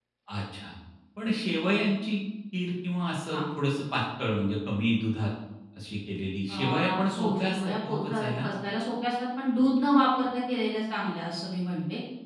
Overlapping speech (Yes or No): Yes